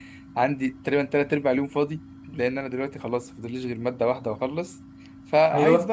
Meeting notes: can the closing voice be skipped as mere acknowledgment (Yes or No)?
Yes